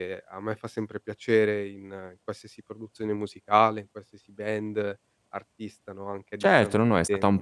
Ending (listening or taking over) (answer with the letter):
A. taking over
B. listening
A